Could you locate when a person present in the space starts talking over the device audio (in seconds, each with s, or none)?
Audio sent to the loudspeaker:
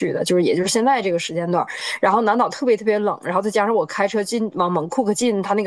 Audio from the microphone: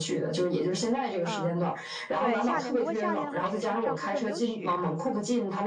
1.2 s